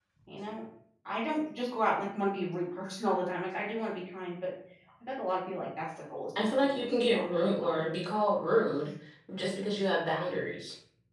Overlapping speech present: Yes, from 6.3 s

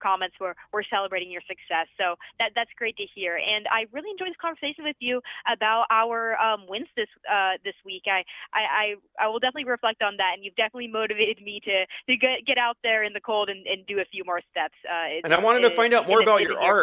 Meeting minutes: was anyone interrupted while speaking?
Yes, from 15.2 s

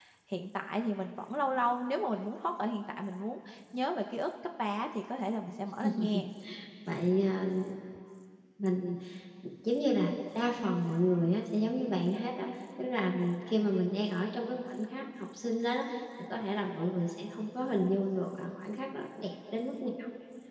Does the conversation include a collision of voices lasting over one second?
No

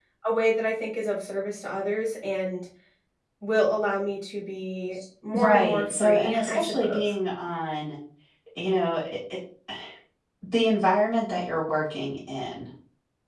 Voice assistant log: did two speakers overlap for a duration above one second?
Yes, from 5.3 s

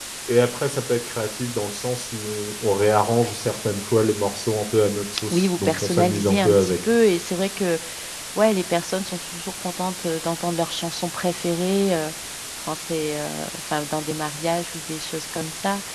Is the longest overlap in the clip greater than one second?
Yes, from 5.3 s

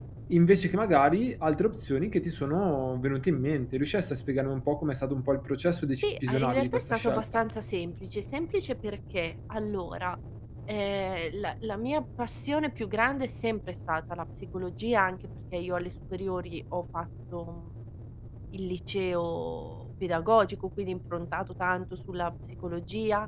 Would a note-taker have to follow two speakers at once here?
Yes, from 6.0 s

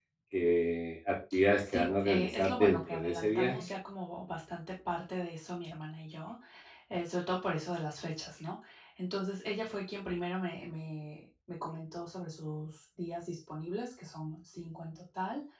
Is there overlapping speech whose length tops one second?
Yes, from 1.6 s

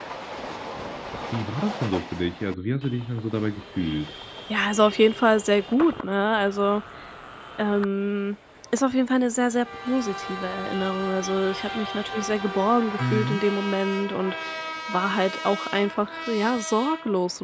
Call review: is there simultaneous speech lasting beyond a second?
No

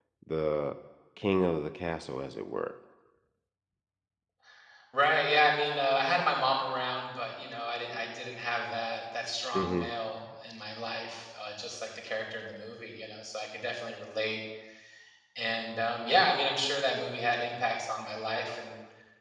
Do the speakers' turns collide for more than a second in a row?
No

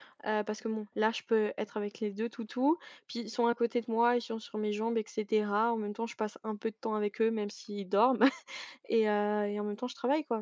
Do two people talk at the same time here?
No

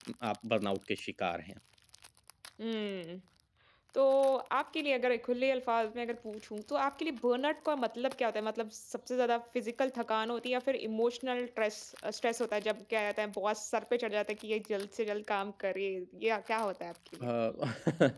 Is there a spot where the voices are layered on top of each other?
No

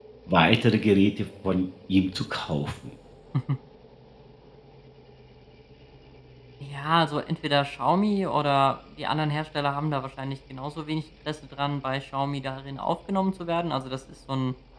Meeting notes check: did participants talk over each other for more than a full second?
No

